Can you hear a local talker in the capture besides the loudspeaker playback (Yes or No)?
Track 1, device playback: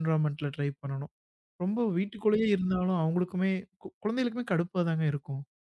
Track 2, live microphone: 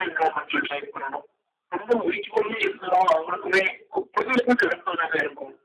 No